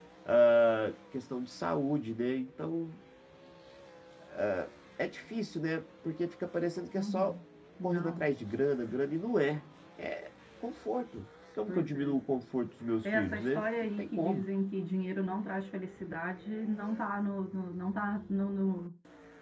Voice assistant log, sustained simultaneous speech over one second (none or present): present